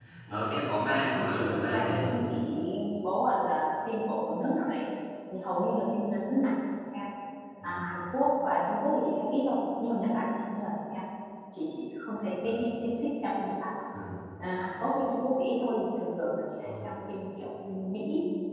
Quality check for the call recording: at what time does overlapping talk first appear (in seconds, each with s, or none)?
0.9 s